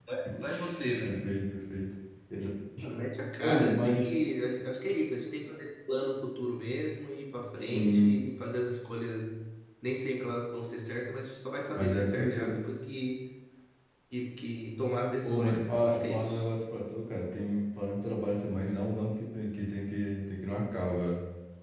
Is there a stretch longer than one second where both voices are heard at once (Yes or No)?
Yes